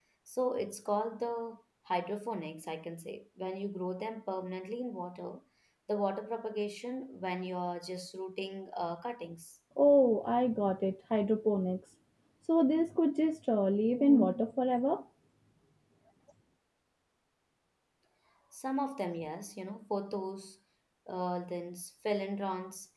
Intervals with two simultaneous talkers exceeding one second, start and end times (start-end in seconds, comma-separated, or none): none